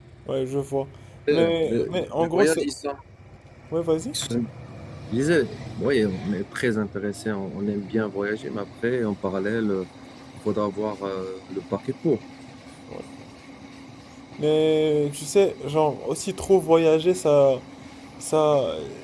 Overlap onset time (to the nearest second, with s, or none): 1 s